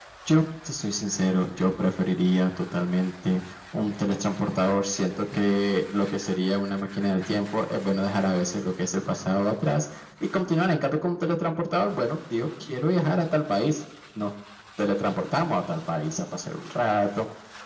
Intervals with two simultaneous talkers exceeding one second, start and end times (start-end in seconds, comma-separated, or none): none